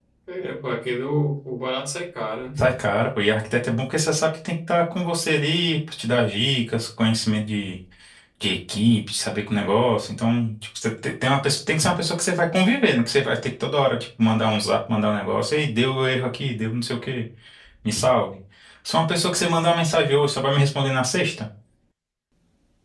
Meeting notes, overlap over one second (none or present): none